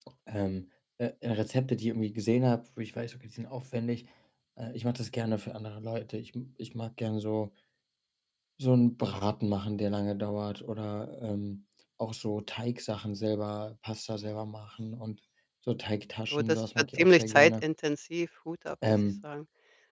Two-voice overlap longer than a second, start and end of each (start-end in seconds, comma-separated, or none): 16.3-17.6